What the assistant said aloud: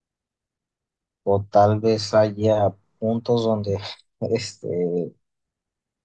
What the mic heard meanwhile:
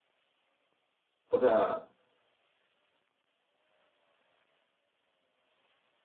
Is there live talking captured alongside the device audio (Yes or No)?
Yes